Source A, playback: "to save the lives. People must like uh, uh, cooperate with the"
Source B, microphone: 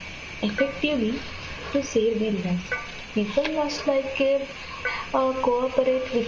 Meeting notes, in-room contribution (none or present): none